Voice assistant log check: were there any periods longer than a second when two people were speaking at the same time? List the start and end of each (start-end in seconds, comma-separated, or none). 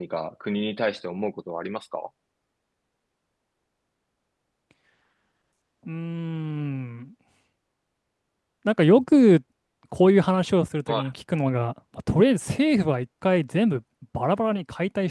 none